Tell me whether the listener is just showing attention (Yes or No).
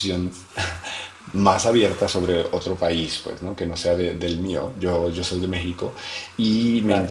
Yes